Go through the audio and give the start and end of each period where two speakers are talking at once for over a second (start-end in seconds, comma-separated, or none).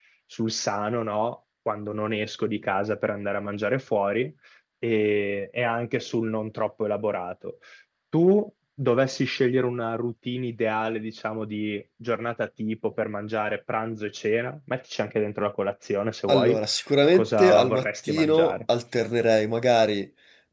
17.1-18.6